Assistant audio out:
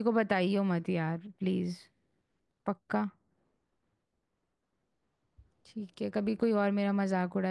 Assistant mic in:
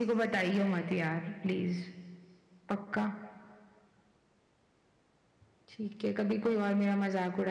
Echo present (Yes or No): Yes